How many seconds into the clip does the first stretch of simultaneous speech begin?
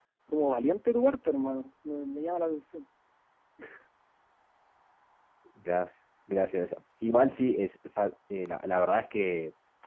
none

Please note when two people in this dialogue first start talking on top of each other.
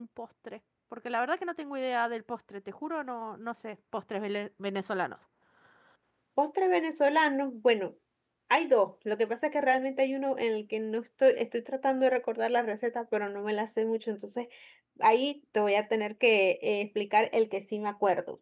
none

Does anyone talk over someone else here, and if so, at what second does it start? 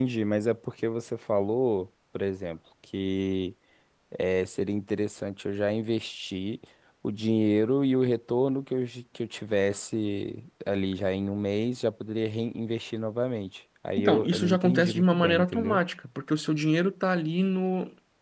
14.0 s

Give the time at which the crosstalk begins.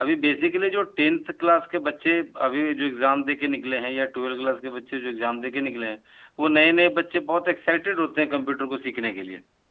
none

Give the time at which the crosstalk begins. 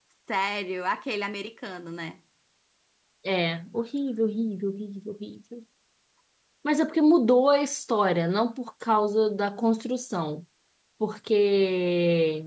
none

